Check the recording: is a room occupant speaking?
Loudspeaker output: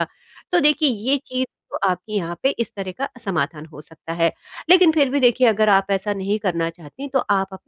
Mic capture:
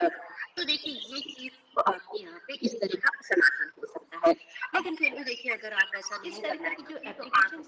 Yes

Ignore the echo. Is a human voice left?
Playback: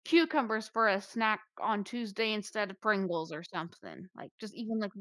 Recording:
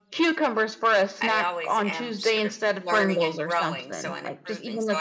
Yes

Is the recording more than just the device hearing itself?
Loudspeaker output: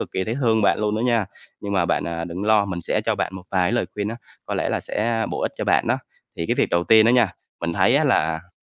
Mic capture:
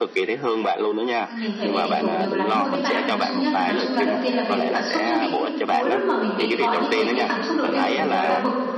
Yes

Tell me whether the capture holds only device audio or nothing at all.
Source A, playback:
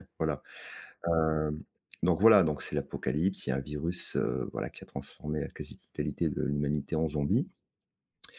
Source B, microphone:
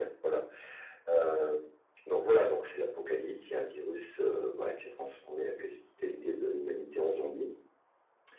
Yes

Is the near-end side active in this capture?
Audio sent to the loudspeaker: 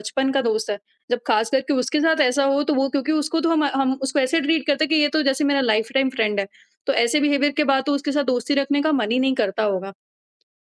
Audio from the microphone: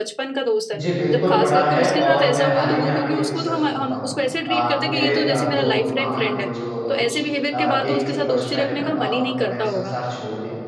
Yes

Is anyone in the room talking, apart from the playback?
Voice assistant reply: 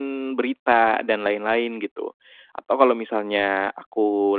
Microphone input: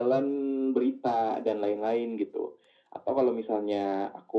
No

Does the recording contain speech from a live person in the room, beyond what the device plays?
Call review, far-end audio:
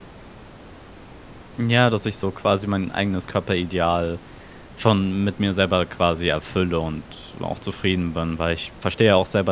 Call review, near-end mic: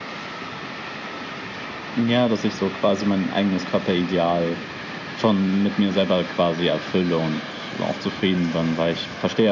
No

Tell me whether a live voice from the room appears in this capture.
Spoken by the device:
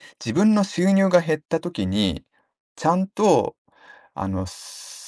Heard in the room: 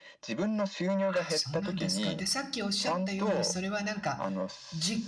Yes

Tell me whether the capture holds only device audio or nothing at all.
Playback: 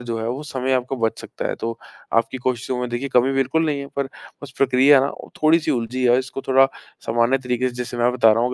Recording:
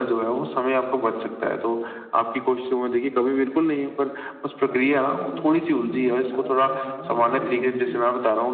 No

